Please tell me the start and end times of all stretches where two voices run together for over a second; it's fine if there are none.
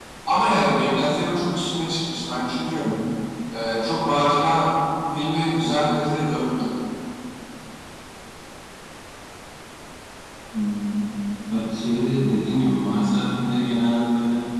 none

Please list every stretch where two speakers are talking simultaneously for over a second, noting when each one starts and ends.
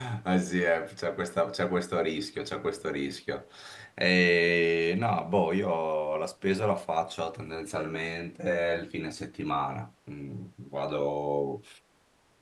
none

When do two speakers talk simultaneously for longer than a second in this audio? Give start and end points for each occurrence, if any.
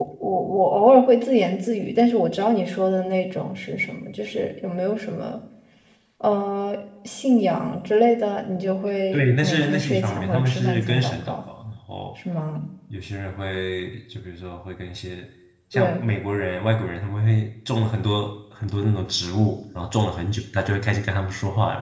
9.1-11.4

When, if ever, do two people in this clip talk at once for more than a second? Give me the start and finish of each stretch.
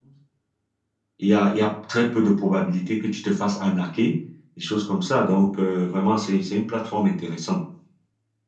none

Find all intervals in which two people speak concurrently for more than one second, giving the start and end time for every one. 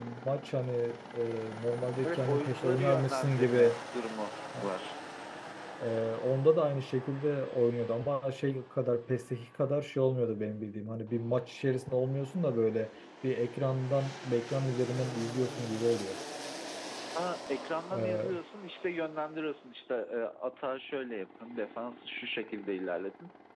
2.0-3.7

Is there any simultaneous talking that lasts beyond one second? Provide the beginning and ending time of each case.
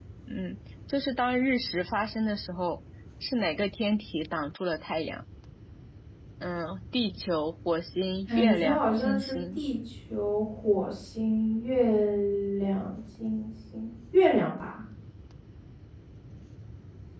8.3-9.6

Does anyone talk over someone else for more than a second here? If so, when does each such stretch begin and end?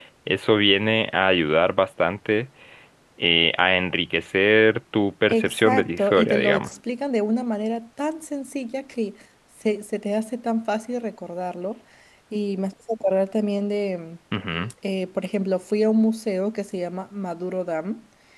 5.3-6.7

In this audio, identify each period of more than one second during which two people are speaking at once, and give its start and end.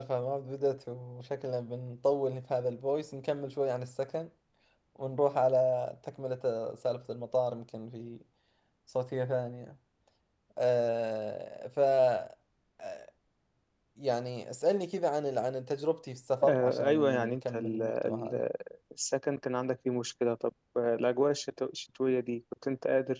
16.5-18.5

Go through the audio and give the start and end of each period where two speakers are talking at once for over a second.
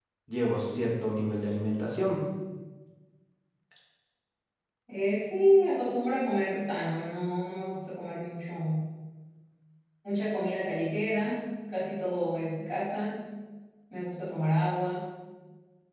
none

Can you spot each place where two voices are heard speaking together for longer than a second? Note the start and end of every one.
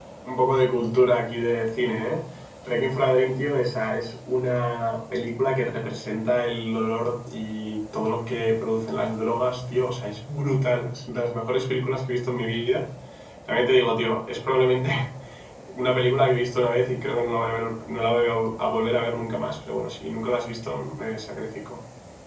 none

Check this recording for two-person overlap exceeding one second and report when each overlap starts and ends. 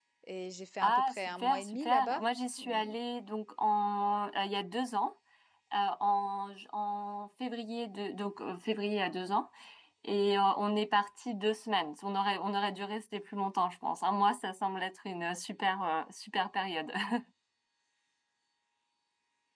0.8-2.2

